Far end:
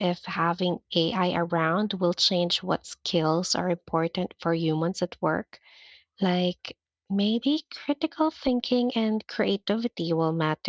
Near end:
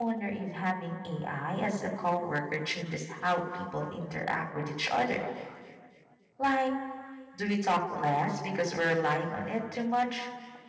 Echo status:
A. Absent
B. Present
A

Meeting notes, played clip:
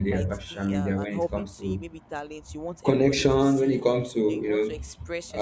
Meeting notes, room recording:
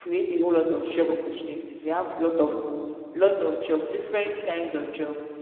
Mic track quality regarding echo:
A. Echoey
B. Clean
B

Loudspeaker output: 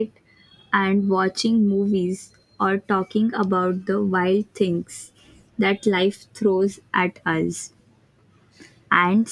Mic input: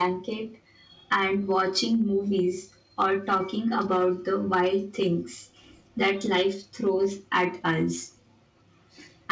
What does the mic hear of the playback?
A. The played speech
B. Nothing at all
A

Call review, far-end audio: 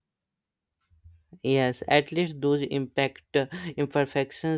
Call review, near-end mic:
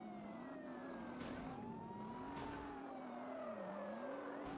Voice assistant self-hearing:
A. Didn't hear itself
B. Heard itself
A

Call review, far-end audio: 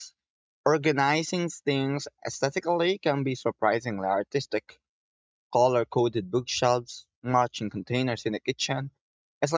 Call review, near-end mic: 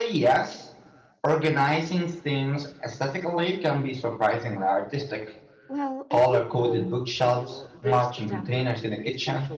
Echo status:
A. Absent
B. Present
B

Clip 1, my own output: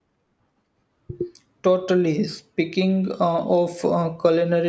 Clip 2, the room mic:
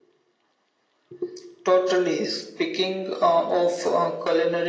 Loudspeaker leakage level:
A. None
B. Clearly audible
B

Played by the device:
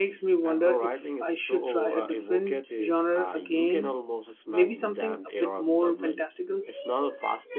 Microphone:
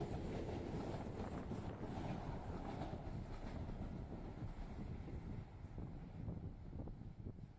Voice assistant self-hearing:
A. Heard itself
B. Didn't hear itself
B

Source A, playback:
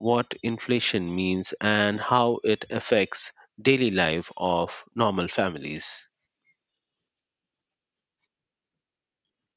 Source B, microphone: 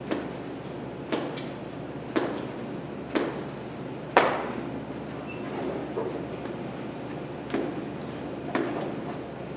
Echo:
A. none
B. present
A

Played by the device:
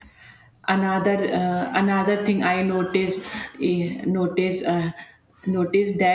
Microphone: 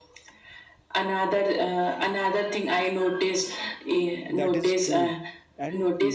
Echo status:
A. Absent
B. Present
B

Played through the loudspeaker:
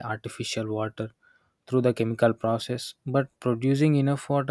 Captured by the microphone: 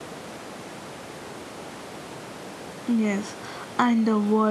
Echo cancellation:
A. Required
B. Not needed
B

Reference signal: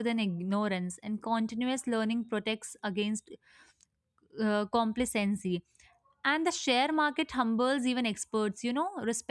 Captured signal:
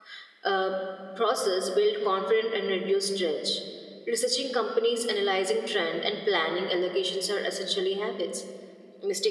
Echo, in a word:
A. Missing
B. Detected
A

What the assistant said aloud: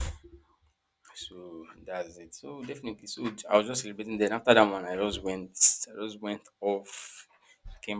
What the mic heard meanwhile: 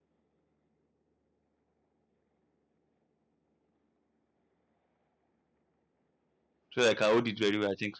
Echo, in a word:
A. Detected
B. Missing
B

